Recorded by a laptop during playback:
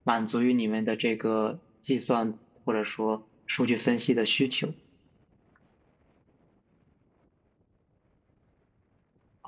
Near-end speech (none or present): present